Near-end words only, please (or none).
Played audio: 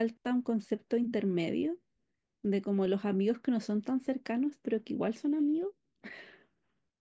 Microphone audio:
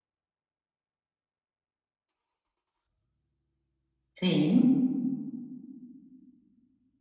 sí,